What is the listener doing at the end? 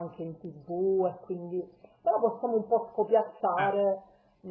listening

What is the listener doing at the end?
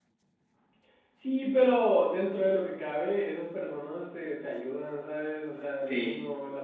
listening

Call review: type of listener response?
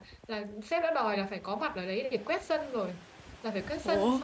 listening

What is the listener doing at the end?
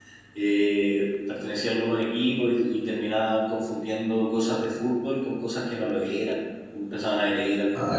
listening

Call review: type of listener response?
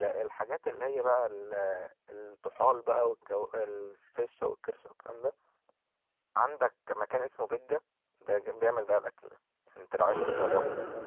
taking over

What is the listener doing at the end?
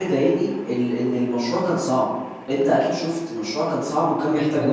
taking over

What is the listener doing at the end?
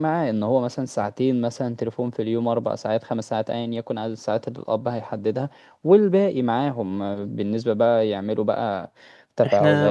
listening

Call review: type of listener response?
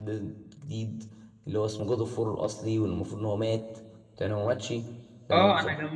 taking over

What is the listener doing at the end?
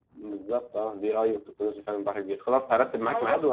taking over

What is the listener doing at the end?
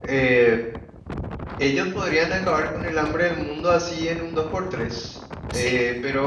listening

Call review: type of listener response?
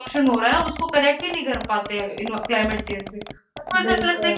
listening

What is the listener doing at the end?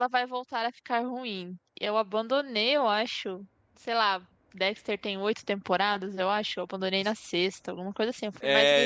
taking over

